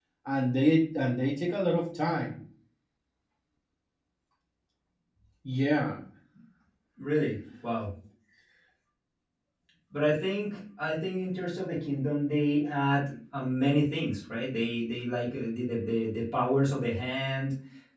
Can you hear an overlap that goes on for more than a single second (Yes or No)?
No